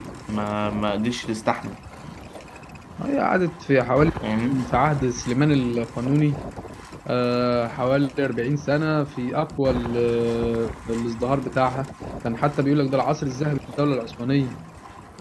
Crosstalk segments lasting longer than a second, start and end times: none

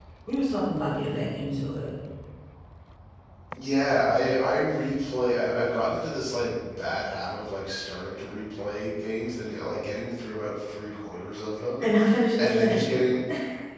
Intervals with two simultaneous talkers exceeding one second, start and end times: none

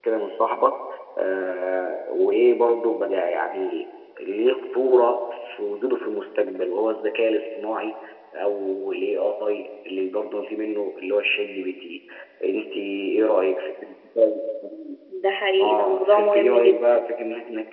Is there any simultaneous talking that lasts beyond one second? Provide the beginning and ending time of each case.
15.6-17.0

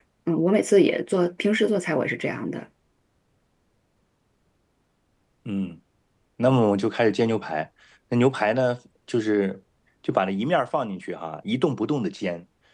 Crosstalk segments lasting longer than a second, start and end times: none

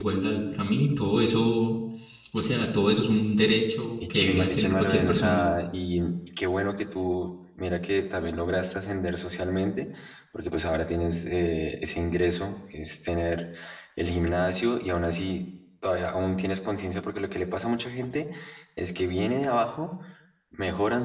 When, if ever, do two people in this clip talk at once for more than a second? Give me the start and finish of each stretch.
4.1-5.5

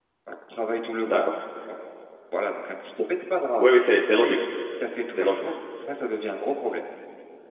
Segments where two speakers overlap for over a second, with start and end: none

